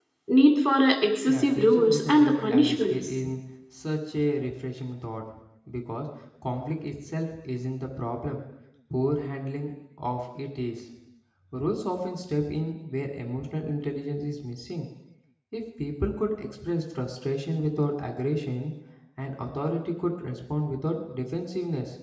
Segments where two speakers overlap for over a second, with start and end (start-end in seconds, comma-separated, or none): 1.3-3.1